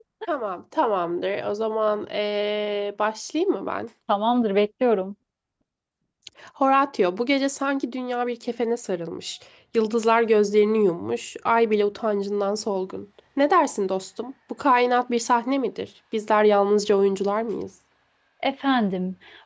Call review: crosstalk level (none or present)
none